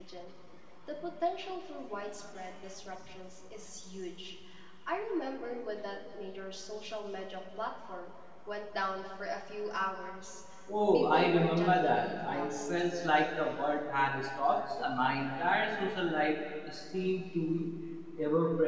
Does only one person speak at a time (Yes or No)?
No